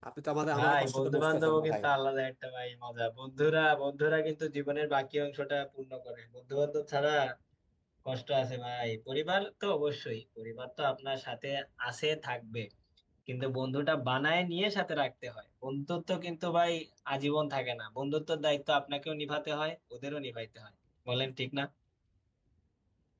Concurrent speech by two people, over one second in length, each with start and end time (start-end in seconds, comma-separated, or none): 0.6-1.8